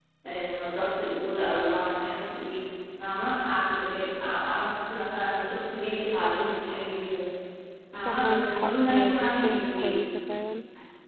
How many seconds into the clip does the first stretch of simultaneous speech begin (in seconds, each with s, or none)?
8.0 s